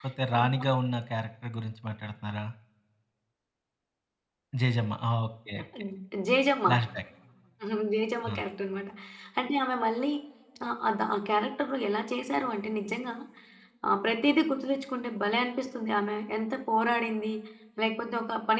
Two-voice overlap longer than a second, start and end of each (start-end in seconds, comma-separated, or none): none